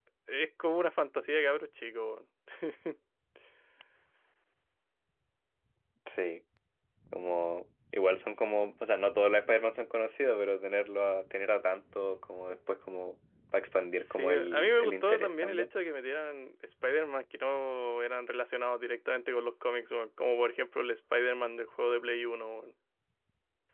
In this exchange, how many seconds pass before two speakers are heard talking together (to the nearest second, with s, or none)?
14 s